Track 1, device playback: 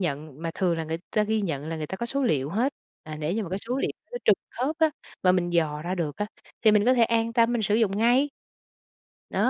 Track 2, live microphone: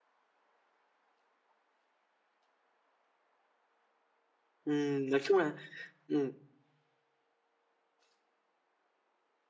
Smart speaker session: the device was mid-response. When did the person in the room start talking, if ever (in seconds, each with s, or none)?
4.6 s